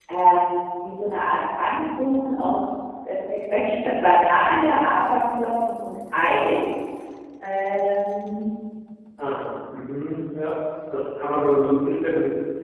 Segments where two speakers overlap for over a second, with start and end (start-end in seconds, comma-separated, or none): none